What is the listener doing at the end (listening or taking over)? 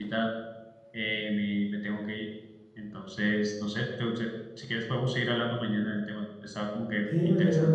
taking over